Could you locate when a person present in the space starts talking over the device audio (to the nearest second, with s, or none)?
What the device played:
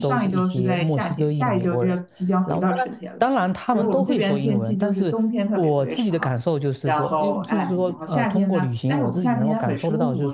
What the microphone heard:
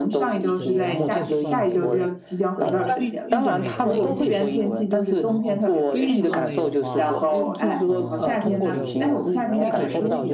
1 s